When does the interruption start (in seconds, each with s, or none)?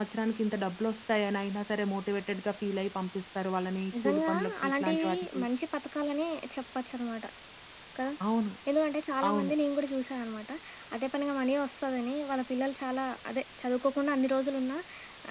4.0 s